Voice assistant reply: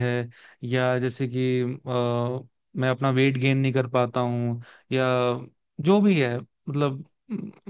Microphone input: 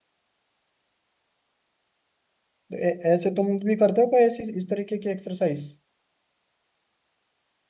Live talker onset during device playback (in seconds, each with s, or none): 2.7 s